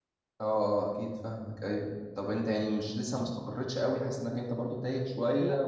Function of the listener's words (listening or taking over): taking over